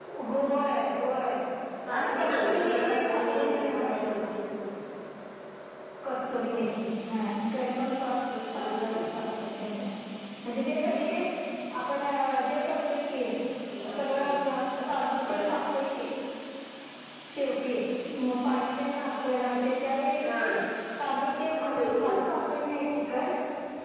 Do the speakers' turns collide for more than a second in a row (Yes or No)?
Yes